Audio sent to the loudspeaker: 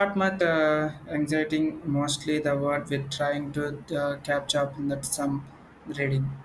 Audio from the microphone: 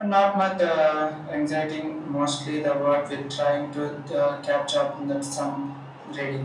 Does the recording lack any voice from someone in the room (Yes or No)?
Yes